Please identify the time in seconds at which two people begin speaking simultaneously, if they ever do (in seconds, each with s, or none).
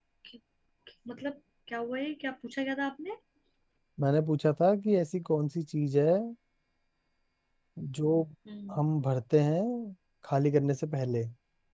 none